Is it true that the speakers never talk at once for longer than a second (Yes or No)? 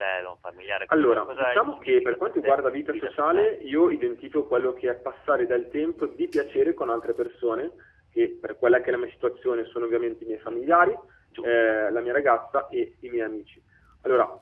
No